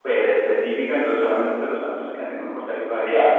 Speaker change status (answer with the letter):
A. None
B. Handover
B